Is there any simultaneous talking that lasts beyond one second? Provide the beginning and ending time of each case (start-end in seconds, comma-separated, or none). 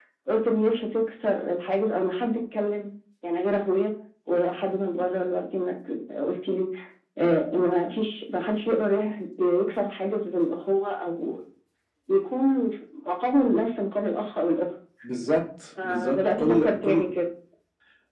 15.8-17.1